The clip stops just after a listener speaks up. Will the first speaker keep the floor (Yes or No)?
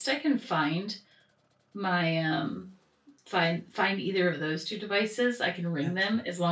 Yes